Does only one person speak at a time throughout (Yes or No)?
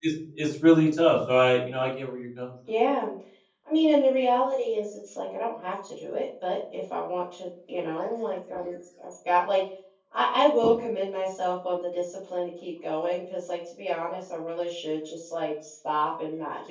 Yes